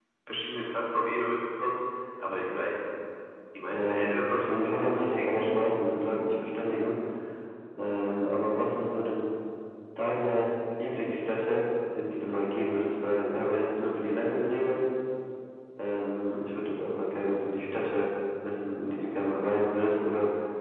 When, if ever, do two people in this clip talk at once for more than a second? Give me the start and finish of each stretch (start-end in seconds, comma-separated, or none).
3.7-5.5